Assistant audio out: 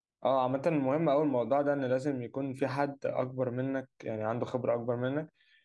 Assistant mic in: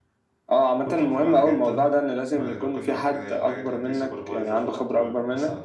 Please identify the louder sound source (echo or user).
echo